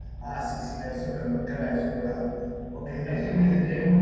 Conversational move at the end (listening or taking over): taking over